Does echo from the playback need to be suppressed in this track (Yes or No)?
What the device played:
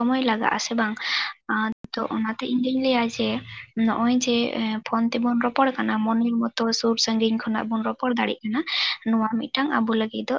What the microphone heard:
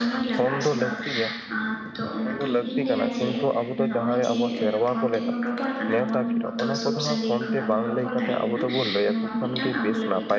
Yes